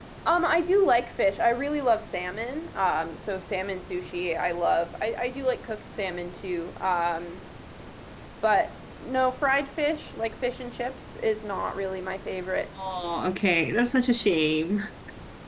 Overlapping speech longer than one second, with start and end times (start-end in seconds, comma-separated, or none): none